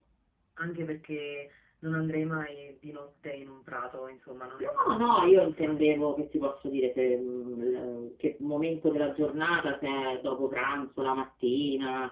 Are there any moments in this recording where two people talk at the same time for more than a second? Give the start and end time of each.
4.6-5.8

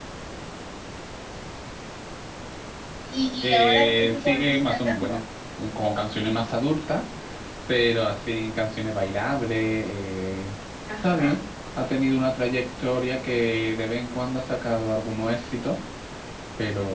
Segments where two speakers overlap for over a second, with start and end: 3.4-5.2

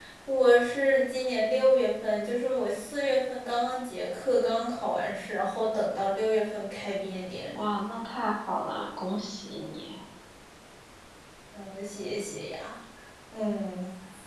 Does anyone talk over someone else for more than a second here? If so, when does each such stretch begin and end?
none

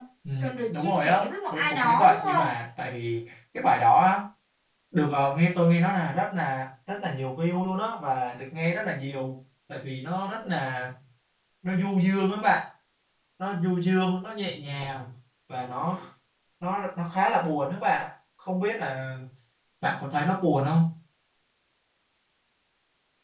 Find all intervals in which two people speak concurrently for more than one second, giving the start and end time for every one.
0.7-2.5

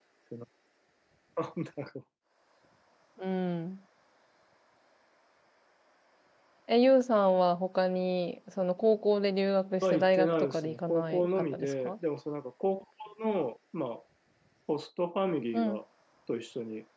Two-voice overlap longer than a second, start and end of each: 9.8-11.9

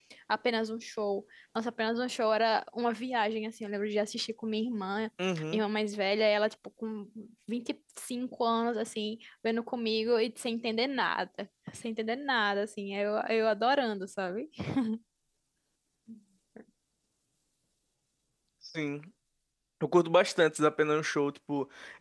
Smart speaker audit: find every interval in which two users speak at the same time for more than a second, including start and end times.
none

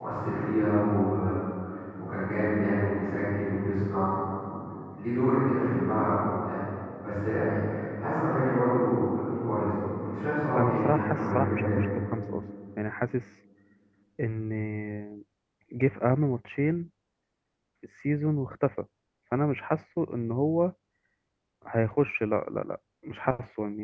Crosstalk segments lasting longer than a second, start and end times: 10.6-11.8

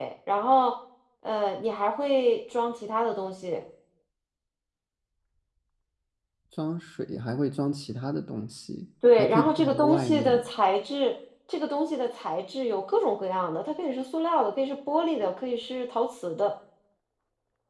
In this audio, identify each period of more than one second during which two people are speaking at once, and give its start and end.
9.2-10.4

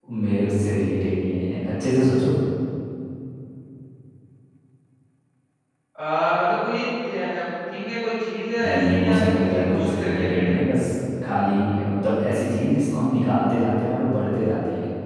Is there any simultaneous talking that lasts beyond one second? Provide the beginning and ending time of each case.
8.6-10.6

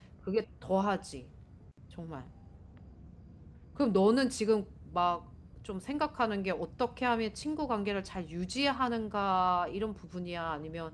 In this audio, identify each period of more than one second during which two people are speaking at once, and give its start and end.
none

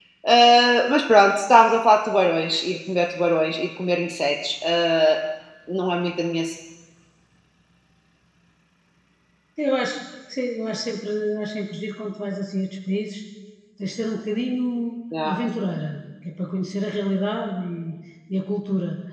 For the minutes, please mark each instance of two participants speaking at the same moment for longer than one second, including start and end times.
none

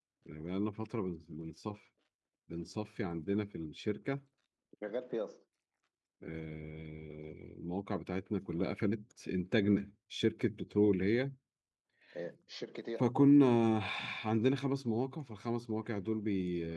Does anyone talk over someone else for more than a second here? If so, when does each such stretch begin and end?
none

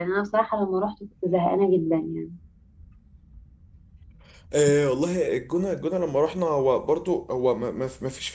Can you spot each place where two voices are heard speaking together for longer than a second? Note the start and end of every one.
none

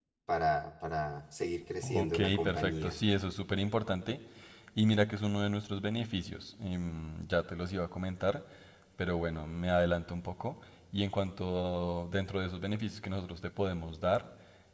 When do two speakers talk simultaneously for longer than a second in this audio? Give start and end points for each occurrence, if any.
1.8-3.0

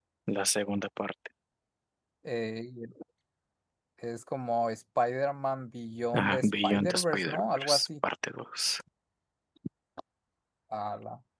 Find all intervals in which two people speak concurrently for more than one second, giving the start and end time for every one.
6.1-7.9

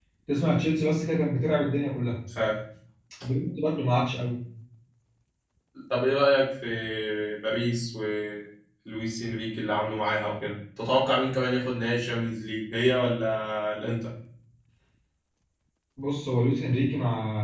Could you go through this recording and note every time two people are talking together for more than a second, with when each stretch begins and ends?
none

